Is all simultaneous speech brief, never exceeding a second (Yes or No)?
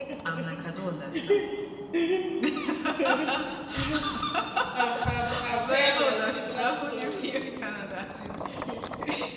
No